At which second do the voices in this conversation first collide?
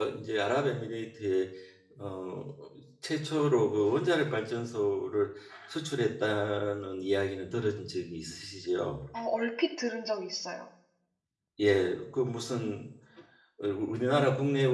none

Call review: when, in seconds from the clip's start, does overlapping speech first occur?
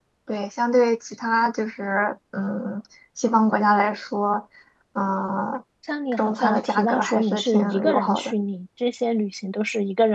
6.1 s

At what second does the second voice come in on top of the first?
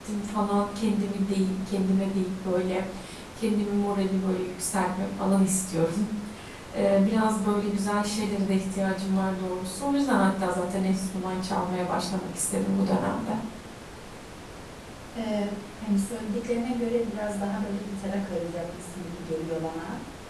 none

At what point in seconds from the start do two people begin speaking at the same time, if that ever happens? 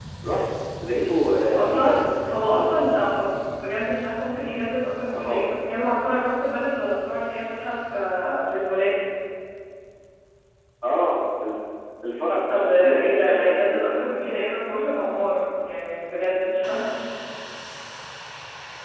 1.6 s

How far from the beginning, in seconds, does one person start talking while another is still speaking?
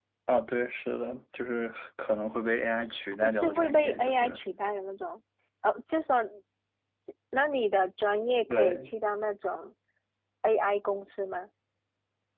3.2 s

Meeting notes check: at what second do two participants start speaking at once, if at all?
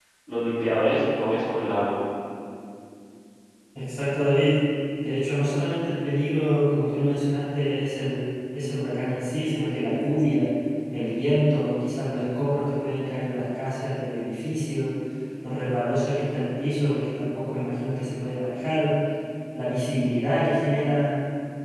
none

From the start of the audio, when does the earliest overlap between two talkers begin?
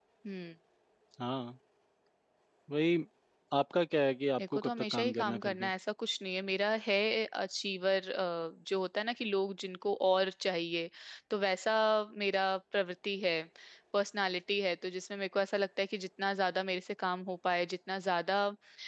4.4 s

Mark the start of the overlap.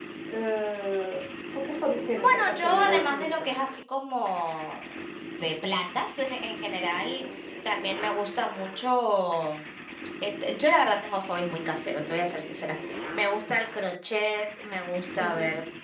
2.2 s

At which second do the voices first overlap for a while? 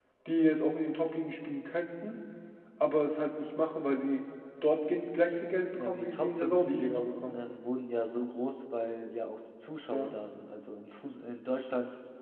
5.8 s

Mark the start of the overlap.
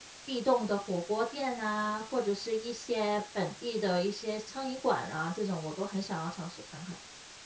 none

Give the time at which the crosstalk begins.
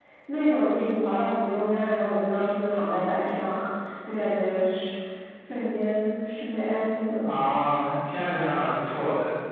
none

